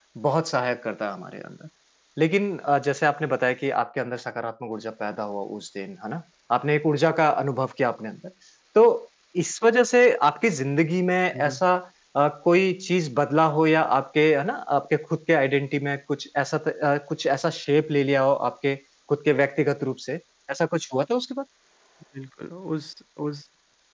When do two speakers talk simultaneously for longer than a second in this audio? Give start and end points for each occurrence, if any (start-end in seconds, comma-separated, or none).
none